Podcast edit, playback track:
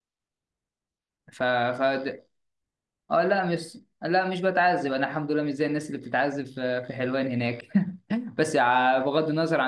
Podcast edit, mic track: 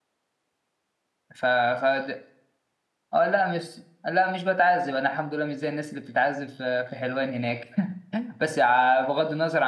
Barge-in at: none

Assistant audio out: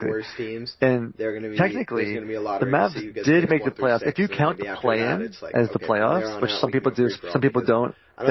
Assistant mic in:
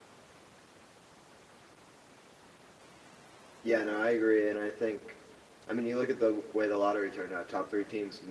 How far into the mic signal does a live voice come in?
3.6 s

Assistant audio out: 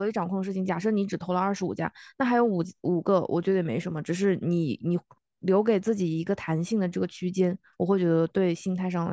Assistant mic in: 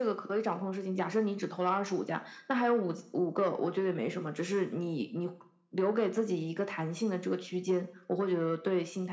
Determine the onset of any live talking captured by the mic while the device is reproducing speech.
none

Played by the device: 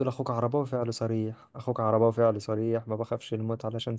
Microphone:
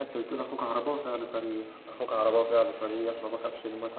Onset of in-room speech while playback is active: none

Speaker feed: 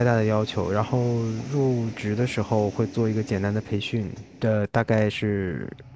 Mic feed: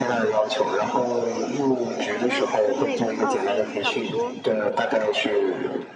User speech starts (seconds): 2.1 s

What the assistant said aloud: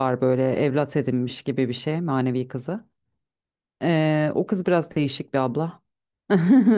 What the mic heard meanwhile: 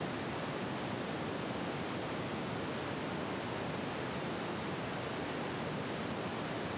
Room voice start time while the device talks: none

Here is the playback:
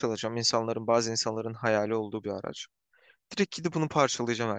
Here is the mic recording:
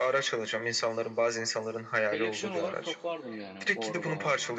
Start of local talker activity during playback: 2.1 s

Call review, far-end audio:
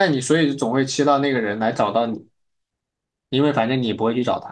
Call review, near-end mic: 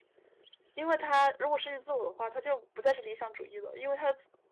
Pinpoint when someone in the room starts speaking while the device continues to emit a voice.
0.7 s

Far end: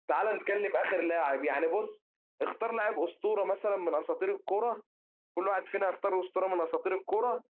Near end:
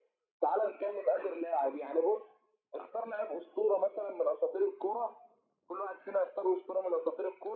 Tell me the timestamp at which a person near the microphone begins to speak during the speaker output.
none

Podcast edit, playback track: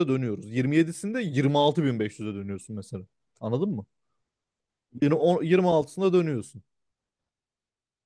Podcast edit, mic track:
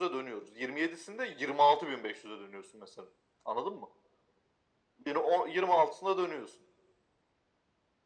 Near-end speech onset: none

